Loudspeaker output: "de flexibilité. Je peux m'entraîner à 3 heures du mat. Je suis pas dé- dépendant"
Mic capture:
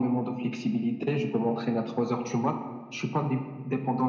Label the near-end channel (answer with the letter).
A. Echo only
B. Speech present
A